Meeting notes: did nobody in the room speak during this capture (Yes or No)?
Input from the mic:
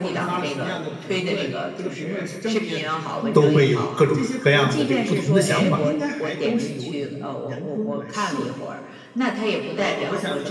No